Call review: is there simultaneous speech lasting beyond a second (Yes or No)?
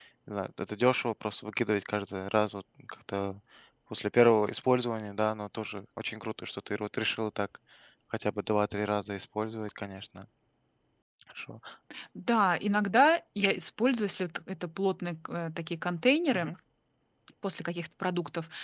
No